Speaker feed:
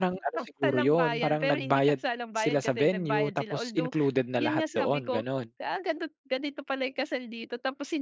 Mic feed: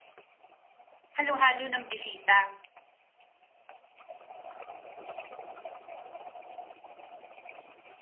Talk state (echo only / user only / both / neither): user only